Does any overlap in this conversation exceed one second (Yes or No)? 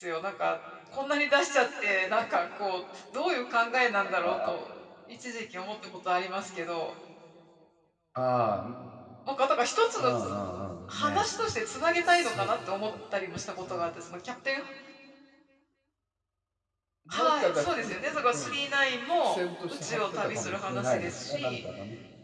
Yes